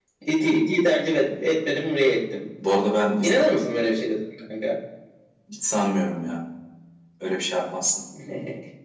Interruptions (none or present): none